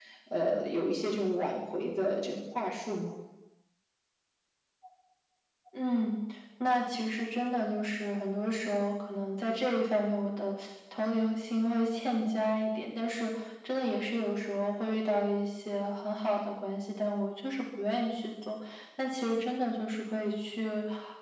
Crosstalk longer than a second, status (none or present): none